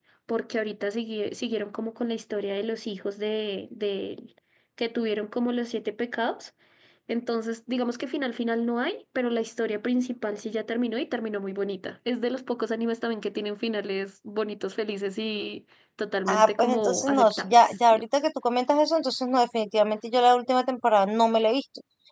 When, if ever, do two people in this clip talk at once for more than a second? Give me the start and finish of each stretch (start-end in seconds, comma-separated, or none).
16.3-18.0